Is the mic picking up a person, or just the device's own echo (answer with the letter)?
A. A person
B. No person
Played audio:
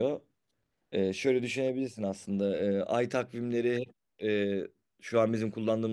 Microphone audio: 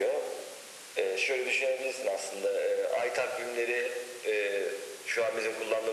B